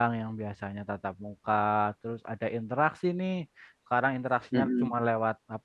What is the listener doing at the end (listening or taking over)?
listening